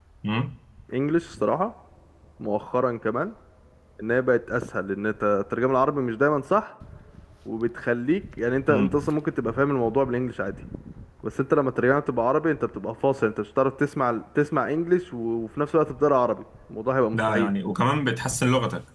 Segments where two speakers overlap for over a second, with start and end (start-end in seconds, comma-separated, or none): none